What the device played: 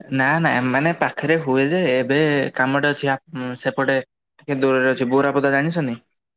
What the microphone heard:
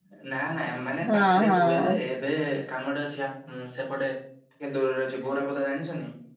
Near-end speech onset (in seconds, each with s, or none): 1.1 s